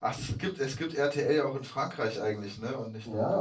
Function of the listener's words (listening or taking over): taking over